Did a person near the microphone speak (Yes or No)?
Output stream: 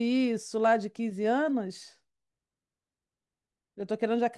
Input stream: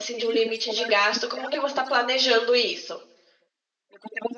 Yes